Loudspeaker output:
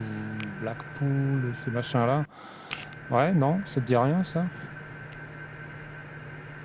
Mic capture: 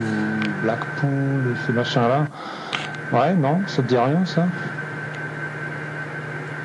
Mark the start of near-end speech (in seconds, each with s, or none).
none